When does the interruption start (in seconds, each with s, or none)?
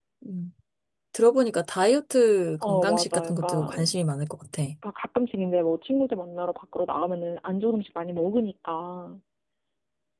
2.6 s